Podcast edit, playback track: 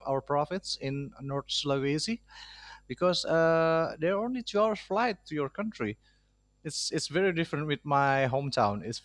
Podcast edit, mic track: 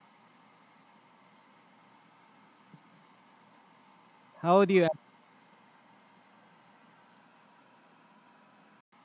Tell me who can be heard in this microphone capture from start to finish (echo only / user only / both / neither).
user only